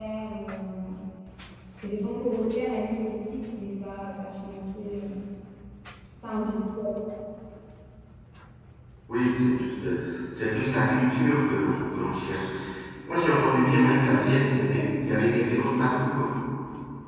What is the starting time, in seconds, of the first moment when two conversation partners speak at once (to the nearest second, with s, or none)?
14 s